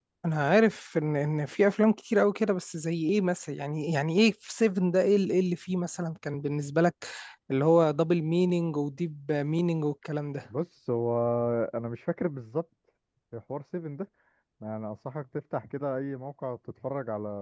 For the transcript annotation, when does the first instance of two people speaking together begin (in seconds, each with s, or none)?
none